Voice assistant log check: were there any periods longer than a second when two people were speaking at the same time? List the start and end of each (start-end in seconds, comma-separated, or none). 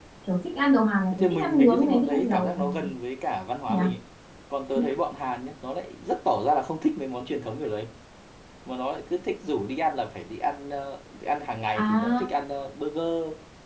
1.1-2.7